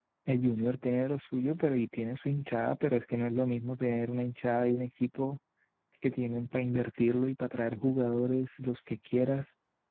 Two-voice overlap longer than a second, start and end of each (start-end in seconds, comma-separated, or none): none